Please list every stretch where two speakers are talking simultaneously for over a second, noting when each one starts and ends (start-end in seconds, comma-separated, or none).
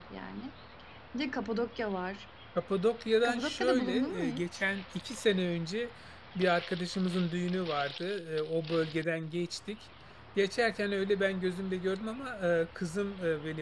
3.2-4.6